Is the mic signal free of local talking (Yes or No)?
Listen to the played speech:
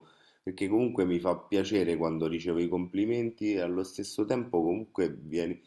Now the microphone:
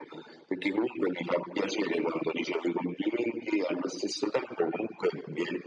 Yes